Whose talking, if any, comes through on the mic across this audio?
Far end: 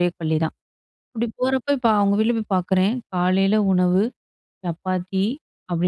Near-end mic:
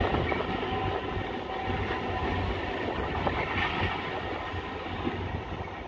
neither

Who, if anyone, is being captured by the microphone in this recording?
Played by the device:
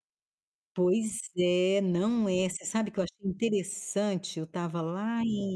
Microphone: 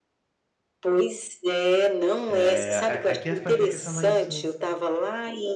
both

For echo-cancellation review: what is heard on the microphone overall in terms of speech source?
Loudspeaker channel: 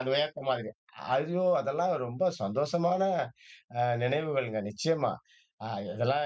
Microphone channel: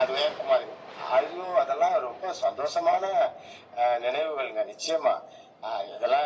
echo only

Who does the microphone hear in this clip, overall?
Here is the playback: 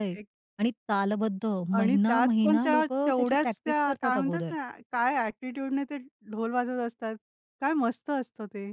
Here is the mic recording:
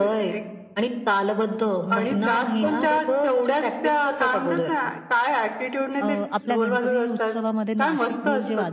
both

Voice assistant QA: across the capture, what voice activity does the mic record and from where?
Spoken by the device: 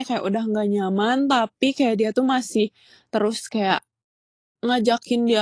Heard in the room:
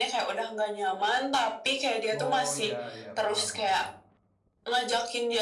both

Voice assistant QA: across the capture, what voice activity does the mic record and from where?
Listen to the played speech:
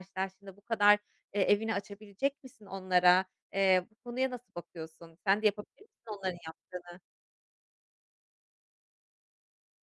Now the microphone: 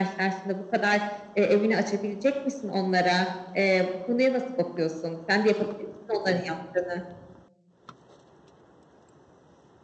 echo only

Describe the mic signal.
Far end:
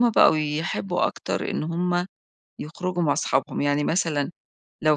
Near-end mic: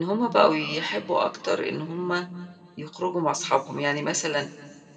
echo only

